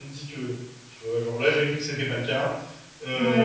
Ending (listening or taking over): taking over